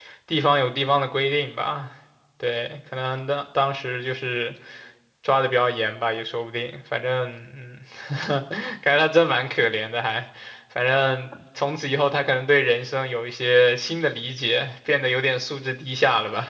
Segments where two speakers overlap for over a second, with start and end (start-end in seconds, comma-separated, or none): none